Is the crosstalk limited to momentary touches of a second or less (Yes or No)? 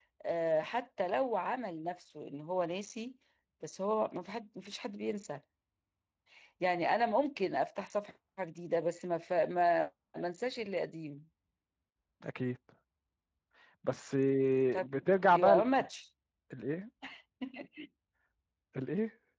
Yes